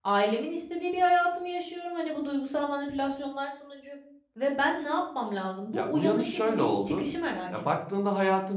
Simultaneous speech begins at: 5.7 s

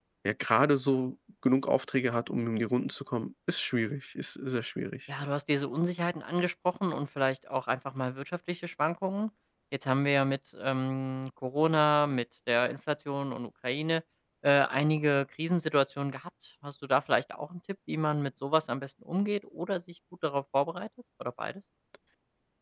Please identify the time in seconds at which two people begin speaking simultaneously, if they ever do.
none

